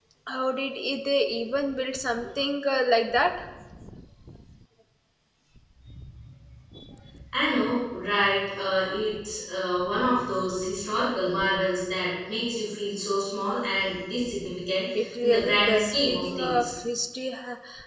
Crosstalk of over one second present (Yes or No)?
Yes